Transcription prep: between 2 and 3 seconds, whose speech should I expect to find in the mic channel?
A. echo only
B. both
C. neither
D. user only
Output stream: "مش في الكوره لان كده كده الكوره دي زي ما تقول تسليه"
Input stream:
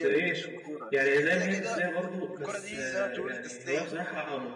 B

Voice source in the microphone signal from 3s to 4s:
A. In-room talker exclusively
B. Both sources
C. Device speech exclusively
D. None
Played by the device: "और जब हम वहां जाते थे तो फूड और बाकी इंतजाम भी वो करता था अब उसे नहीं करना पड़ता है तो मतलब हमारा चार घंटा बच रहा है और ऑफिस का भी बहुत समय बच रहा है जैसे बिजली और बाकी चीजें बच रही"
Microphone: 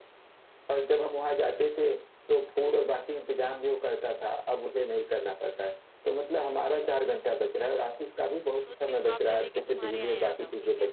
C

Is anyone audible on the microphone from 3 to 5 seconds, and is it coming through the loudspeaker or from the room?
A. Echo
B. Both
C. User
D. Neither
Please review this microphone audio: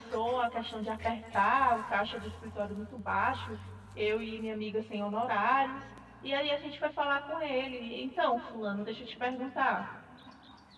A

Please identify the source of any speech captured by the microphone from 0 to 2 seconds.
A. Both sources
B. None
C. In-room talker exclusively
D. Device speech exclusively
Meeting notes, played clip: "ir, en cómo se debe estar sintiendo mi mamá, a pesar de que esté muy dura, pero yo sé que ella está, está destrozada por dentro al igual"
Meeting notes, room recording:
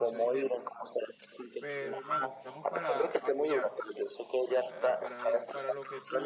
A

